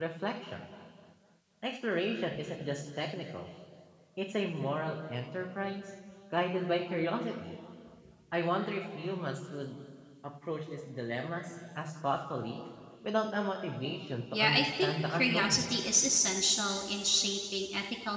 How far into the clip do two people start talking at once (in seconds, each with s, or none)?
14.3 s